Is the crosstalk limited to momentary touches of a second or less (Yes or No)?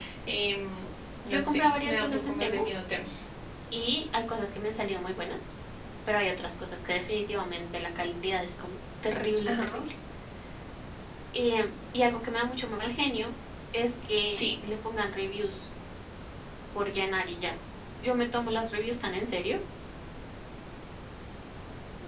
No